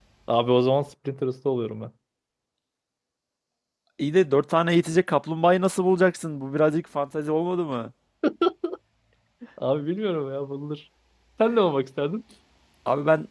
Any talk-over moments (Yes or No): No